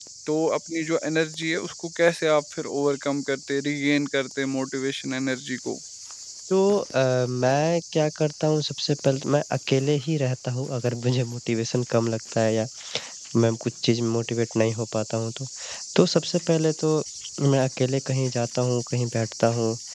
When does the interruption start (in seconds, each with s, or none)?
none